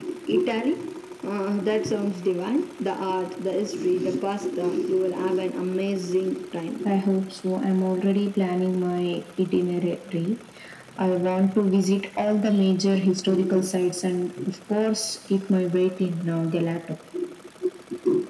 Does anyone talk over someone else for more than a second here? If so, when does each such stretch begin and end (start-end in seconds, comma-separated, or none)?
none